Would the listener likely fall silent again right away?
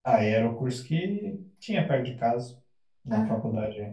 Yes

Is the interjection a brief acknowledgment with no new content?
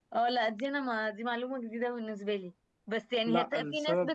Yes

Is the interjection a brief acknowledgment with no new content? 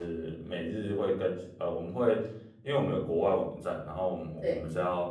Yes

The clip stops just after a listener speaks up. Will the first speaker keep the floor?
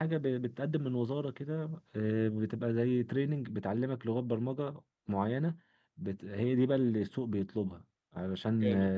Yes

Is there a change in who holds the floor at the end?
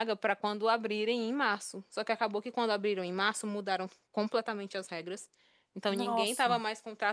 No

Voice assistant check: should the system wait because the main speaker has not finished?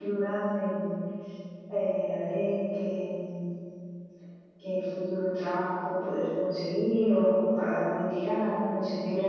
No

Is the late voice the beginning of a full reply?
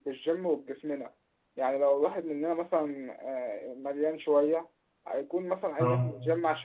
No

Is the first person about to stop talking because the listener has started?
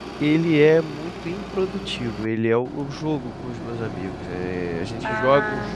No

